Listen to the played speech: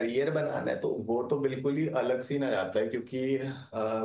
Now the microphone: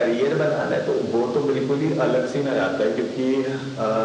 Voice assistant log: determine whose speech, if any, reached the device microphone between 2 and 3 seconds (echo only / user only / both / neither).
echo only